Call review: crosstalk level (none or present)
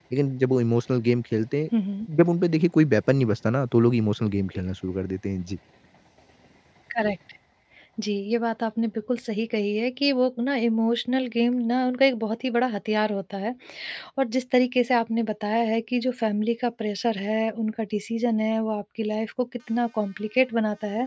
none